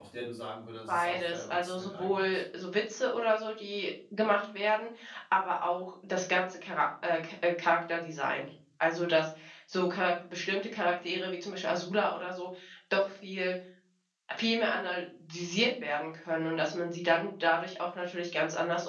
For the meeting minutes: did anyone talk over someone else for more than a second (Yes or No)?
Yes